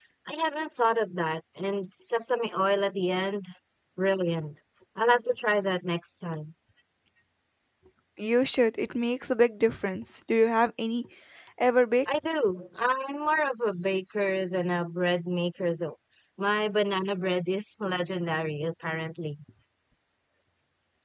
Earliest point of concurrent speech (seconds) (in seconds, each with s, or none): none